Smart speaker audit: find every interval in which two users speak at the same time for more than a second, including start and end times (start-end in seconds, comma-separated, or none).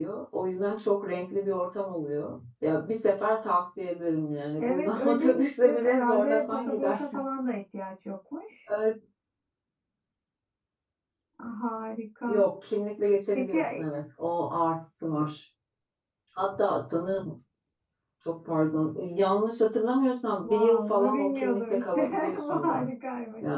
4.6-7.2, 20.4-22.8